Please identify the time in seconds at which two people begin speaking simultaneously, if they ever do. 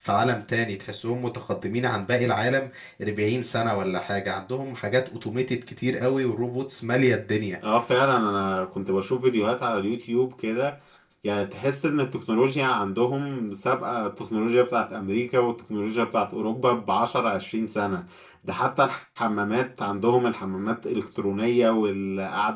none

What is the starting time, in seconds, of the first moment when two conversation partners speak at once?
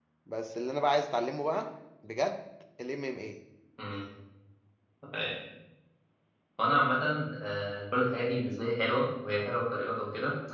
none

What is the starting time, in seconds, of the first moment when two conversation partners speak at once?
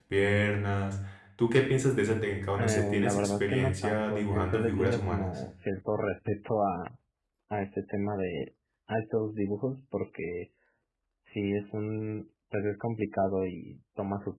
3 s

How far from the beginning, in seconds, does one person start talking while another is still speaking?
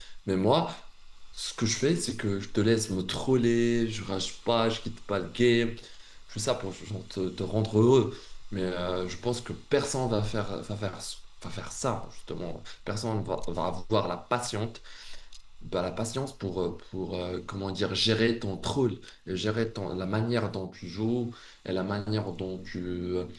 none

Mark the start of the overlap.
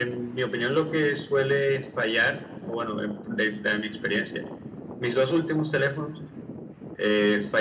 none

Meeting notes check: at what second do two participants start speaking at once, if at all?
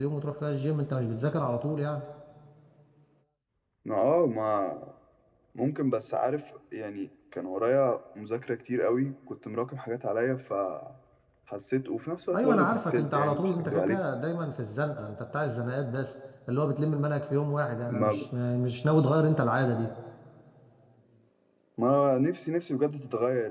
12 s

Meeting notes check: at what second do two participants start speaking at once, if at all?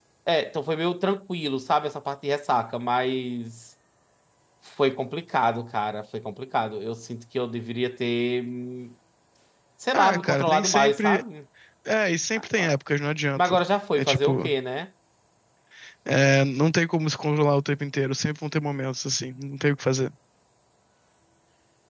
10 s

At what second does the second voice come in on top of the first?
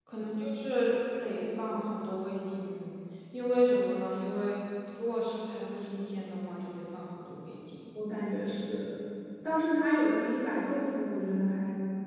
none

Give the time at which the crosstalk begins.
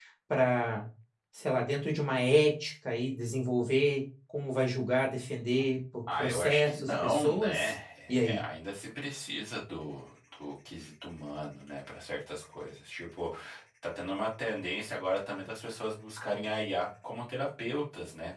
6 s

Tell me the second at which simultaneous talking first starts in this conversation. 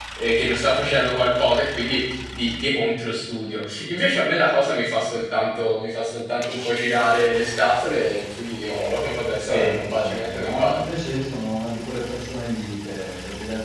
9 s

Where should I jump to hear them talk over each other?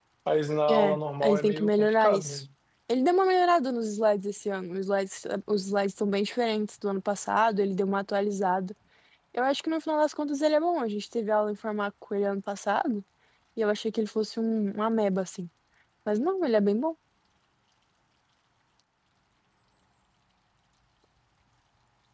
1 s

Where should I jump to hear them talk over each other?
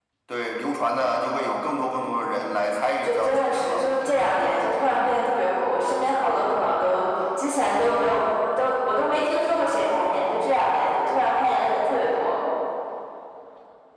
3 s

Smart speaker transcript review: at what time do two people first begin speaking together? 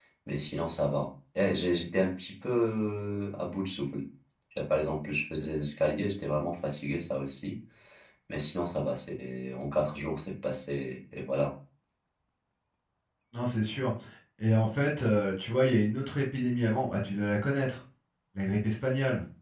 none

